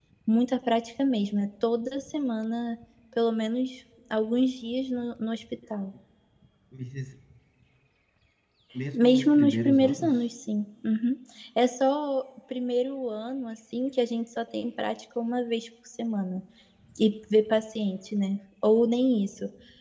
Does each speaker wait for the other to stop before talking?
No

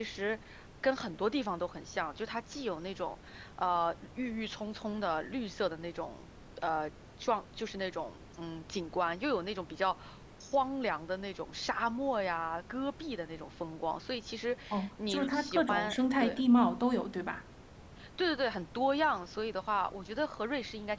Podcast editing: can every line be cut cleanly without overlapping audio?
No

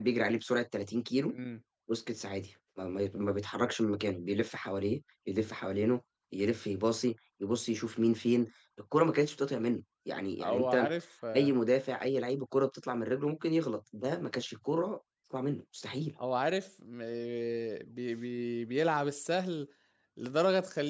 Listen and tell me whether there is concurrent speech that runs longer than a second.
No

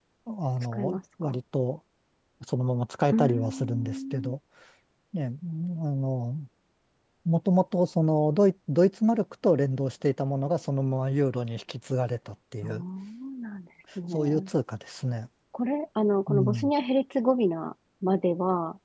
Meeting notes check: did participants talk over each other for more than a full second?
Yes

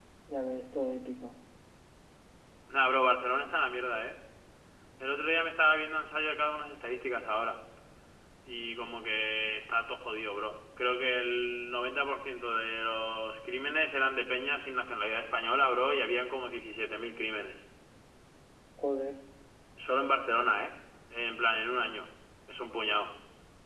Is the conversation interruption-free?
Yes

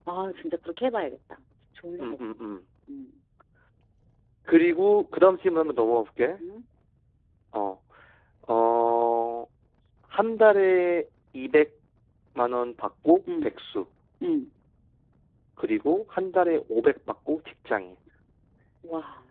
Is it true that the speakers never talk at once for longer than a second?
Yes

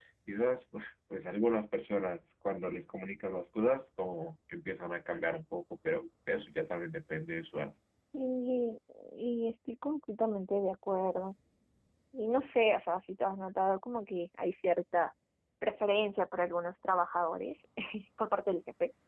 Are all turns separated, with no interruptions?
Yes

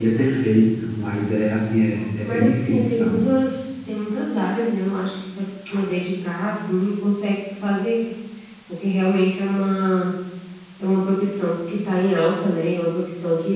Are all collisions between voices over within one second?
No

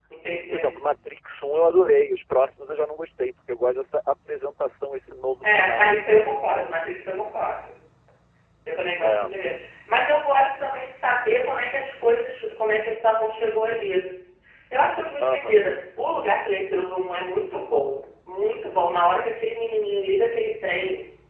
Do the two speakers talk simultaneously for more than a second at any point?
No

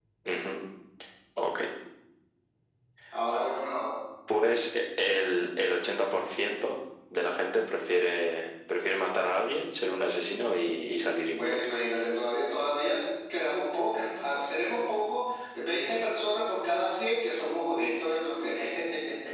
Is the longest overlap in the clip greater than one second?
No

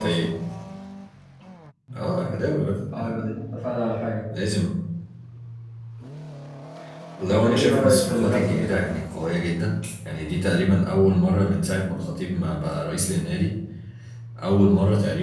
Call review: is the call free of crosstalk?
No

